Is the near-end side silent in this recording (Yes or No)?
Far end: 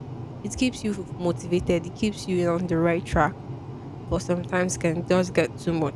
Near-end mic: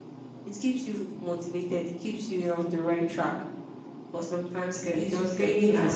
No